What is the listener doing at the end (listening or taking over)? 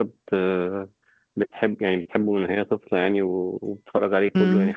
listening